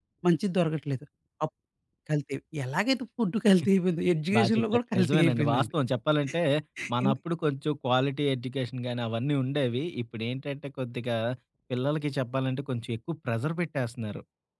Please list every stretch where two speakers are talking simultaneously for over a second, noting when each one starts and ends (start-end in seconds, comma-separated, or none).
4.3-5.7